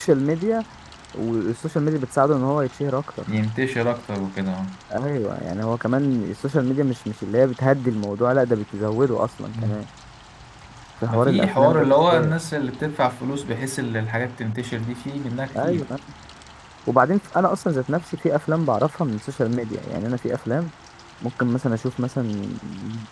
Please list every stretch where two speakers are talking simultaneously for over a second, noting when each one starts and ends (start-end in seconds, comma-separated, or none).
11.1-12.3